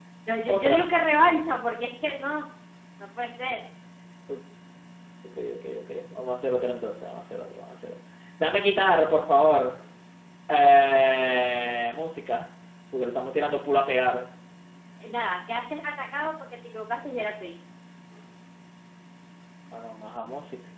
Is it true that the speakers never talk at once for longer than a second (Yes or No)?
Yes